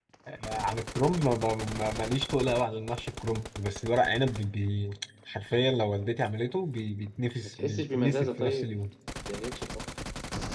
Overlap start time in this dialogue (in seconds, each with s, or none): 7.4 s